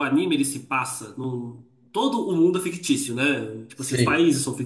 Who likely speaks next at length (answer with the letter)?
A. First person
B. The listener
A